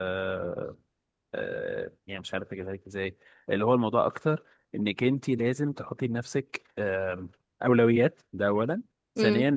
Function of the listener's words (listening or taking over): listening